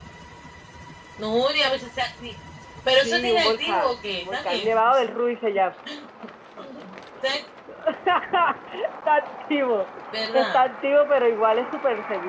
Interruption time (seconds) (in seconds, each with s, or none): 3.0 s